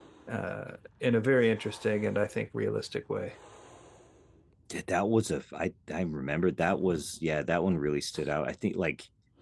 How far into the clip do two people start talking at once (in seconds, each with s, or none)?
none